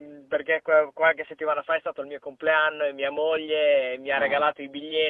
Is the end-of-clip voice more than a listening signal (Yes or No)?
No